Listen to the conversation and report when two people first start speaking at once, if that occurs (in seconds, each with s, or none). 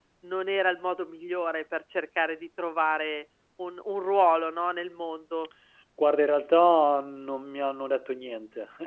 none